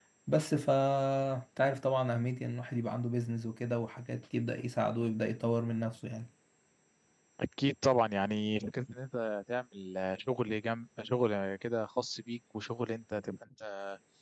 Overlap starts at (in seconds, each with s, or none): none